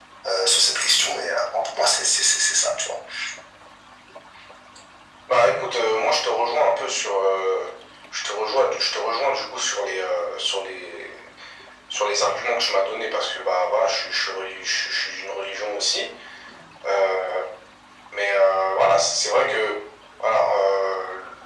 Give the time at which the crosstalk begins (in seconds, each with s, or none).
none